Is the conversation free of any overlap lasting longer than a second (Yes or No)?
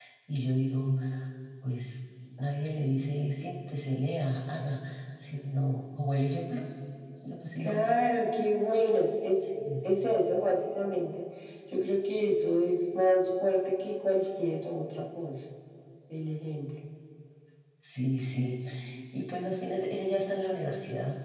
Yes